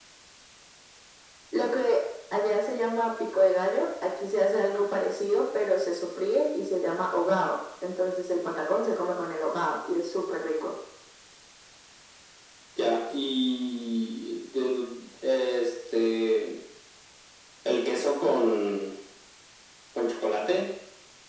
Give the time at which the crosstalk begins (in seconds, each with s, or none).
none